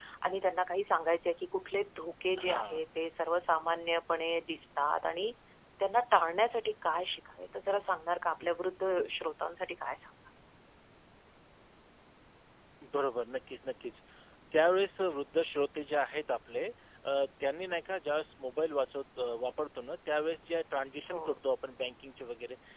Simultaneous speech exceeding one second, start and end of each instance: none

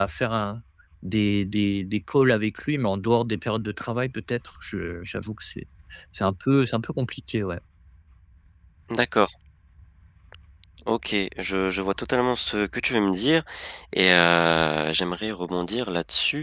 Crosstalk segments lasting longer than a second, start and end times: none

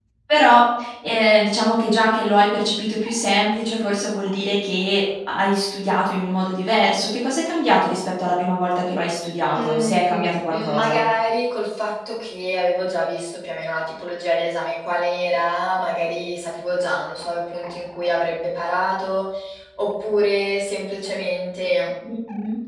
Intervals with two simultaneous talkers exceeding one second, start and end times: 9.6-11.0

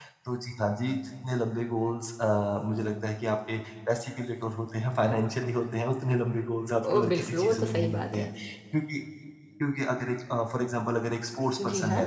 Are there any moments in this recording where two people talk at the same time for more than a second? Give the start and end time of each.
6.9-8.2

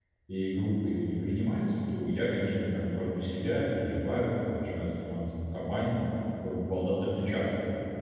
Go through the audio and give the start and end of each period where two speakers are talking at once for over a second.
none

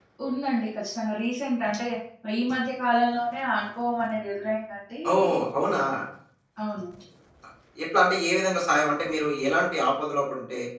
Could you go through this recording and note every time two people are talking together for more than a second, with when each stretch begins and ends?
none

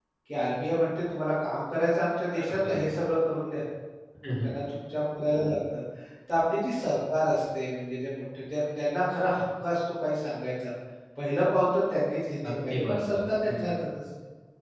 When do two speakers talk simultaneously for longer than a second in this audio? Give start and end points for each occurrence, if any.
12.5-13.9

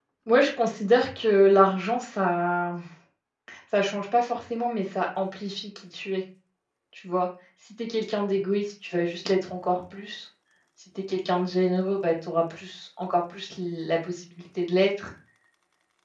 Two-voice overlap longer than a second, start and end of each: none

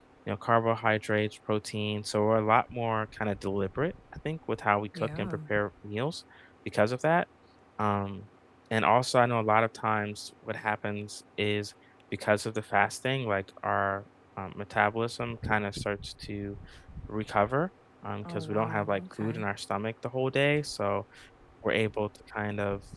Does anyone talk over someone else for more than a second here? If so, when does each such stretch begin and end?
18.2-19.4

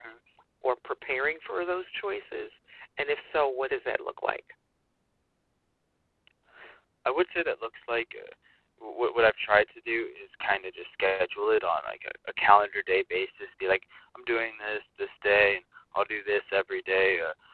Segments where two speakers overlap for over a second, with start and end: none

